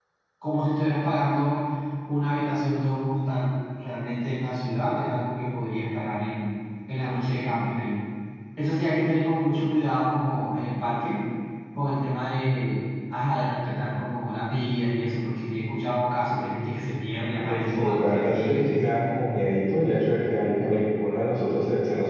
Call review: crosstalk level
present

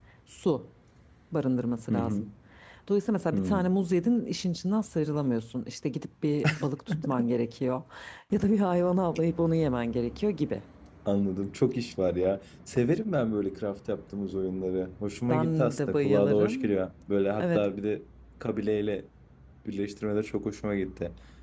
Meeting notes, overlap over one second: present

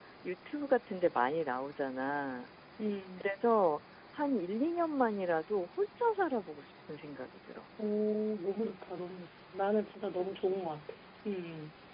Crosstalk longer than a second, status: none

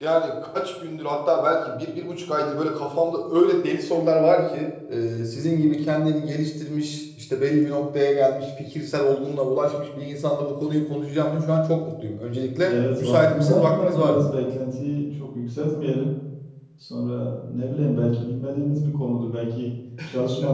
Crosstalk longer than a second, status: present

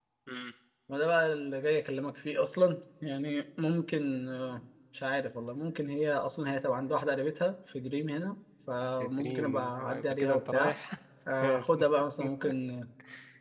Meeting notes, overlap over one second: present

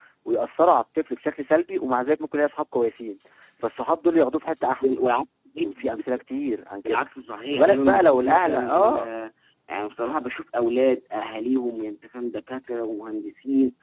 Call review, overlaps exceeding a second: present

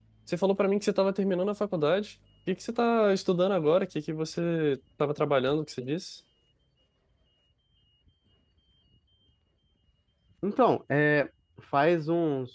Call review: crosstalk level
none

